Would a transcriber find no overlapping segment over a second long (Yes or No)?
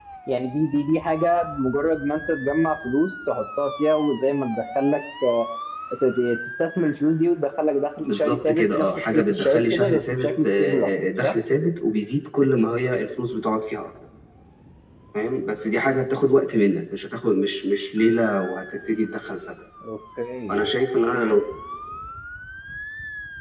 No